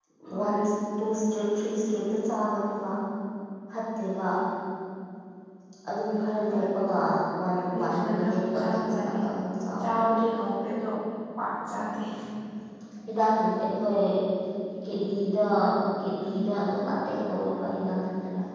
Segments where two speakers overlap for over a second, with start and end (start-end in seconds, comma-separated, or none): 7.8-9.2